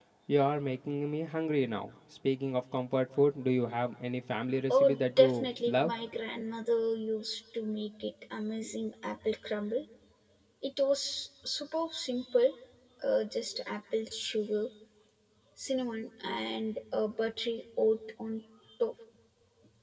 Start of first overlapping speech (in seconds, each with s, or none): 4.7 s